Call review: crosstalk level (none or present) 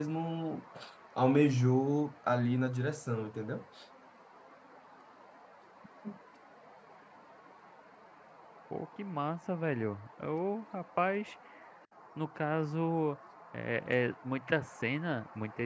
none